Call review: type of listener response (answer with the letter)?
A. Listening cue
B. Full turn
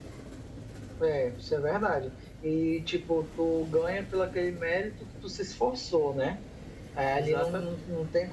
A